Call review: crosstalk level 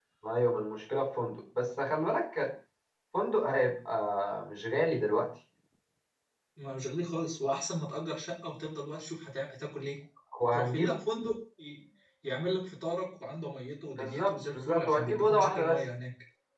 present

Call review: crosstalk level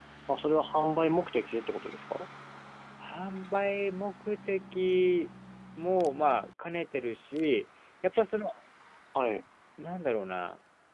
none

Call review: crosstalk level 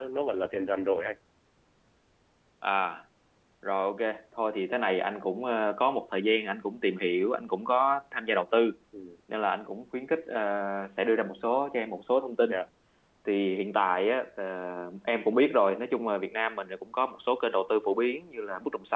none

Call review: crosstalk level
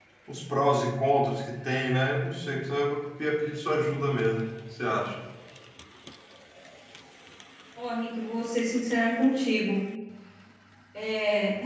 none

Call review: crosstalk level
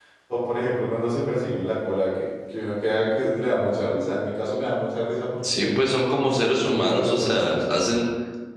present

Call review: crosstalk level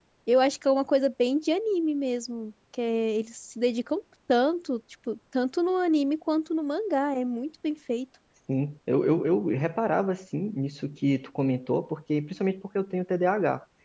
none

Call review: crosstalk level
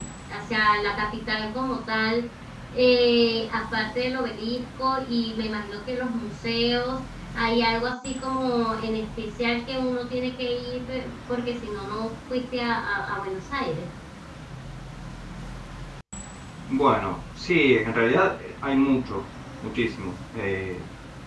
none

